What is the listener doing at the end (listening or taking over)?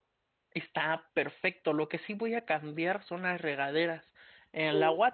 listening